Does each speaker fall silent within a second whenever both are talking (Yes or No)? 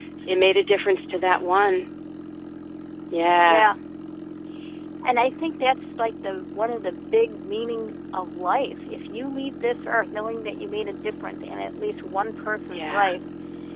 Yes